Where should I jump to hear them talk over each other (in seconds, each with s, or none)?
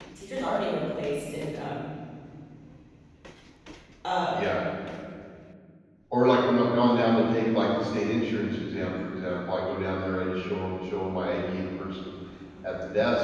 none